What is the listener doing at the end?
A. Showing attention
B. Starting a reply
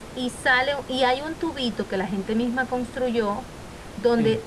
A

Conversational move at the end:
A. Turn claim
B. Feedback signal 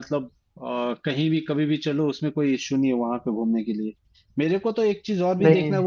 B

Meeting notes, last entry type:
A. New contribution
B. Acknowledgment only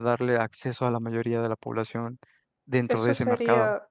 A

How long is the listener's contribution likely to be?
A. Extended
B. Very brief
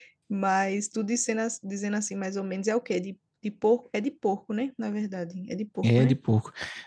A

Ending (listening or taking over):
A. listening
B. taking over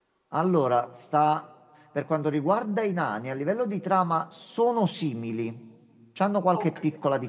A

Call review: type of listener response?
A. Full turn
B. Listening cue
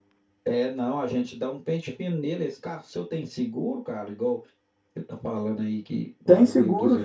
A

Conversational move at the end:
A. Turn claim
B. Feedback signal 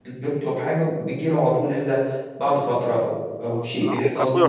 A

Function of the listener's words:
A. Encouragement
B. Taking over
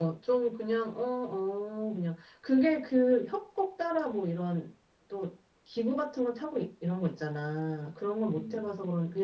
A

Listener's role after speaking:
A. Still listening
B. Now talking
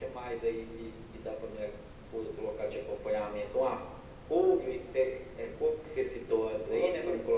B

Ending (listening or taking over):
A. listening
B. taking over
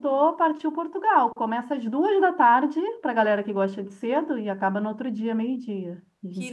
B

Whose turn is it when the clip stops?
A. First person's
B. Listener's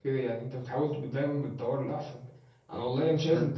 A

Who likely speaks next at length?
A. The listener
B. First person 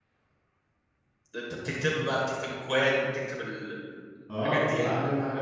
A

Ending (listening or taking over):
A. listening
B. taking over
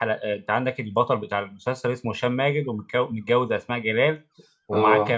A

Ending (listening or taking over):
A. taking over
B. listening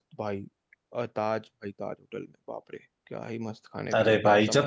A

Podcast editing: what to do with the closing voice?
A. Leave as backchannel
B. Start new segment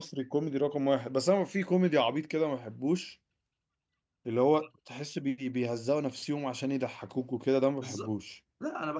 B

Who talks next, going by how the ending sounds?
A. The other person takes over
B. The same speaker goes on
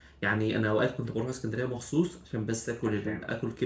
B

